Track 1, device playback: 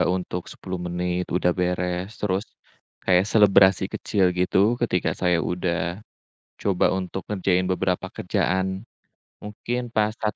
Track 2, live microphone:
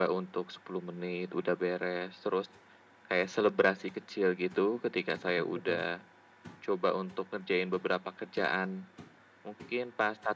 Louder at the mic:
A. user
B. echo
B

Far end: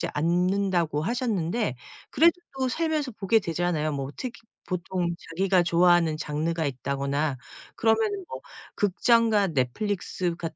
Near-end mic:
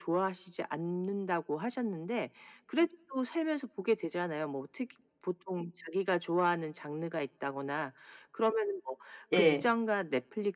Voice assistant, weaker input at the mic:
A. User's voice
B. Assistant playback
B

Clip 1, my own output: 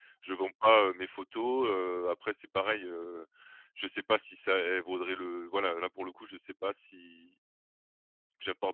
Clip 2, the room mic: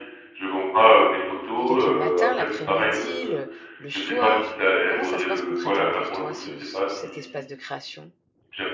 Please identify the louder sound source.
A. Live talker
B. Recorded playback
B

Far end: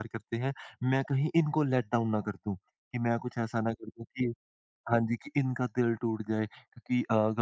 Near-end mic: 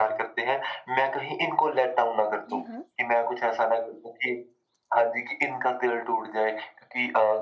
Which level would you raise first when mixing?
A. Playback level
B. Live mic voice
B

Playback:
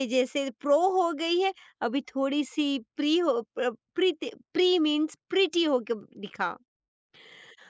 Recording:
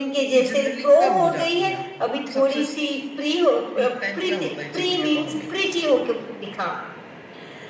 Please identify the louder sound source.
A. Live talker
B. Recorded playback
B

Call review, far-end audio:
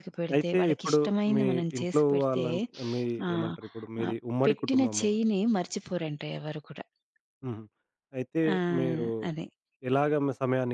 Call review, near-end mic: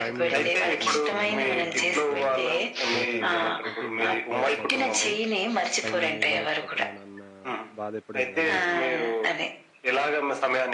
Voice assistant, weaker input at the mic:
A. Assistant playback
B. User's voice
B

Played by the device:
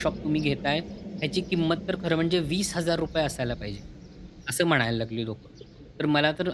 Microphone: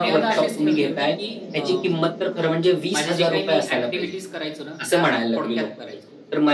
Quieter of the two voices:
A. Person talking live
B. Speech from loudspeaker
A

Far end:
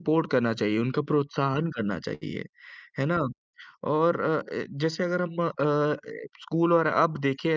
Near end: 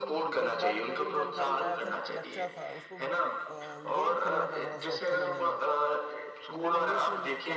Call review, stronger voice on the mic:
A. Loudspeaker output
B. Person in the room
A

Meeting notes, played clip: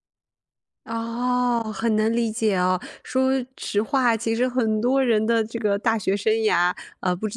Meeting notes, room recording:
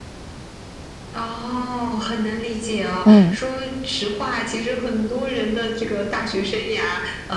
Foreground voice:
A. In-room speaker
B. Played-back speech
A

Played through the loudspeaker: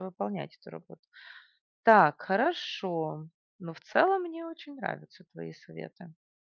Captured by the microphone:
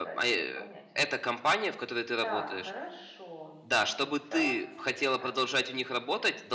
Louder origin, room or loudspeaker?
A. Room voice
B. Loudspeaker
A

